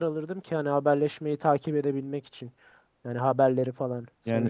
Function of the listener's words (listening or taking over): taking over